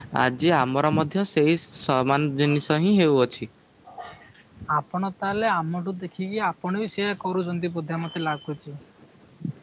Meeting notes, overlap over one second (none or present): none